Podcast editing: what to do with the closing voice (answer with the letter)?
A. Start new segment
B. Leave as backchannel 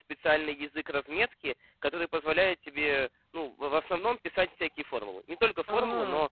B